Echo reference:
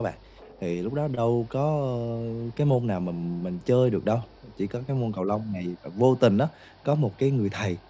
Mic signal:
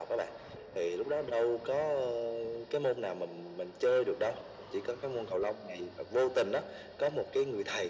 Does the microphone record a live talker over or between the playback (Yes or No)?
No